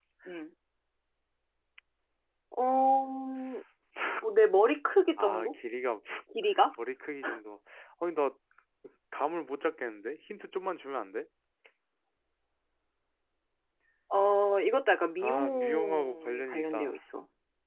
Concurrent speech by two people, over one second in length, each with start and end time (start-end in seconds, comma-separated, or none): 15.2-17.0